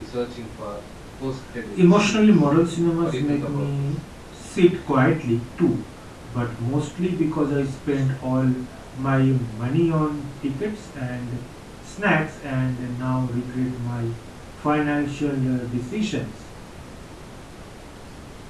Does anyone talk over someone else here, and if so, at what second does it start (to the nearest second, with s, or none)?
2 s